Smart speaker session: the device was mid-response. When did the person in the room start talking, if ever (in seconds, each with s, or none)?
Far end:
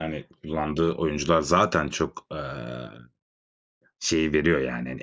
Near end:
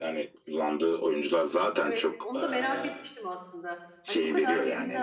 1.8 s